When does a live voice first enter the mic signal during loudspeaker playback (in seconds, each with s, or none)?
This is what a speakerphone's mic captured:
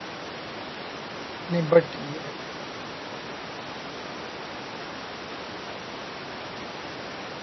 1.5 s